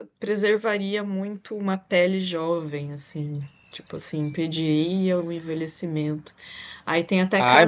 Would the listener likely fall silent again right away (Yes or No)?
No